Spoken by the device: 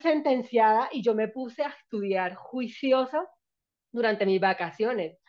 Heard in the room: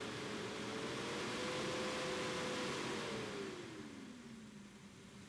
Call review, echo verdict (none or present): none